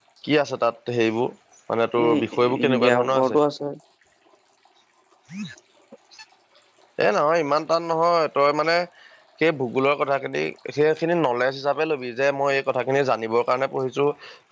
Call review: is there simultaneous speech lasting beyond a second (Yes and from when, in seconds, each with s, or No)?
Yes, from 2.1 s